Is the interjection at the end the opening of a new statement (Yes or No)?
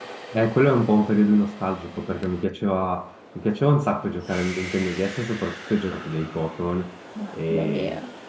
No